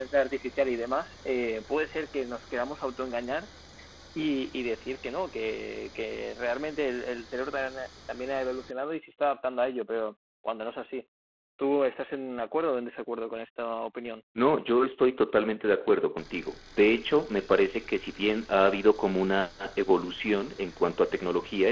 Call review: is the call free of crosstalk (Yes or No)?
Yes